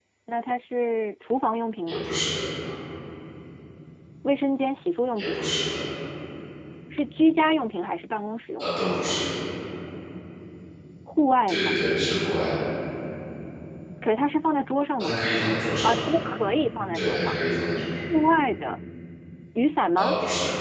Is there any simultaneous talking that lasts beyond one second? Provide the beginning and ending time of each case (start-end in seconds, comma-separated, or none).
none